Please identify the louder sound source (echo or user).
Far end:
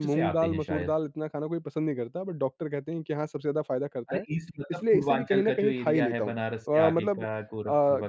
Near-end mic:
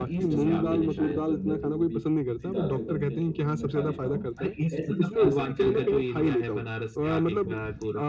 echo